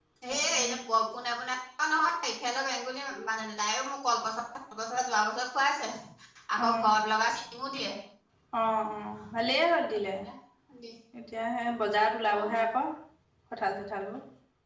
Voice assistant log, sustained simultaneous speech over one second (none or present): none